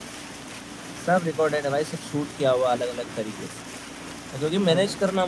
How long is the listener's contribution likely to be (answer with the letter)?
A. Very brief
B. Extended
A